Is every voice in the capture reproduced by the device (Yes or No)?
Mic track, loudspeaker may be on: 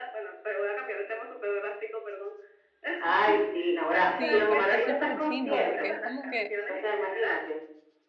No